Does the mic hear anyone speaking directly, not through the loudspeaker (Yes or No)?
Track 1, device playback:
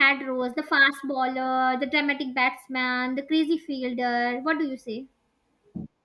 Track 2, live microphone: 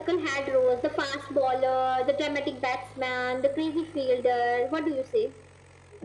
No